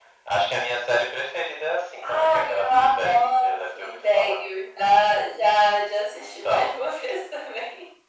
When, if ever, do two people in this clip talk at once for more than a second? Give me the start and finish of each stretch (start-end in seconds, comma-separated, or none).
2.0-4.4